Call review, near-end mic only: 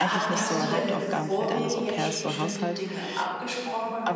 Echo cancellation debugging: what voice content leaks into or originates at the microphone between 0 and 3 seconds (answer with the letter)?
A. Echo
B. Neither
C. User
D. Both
D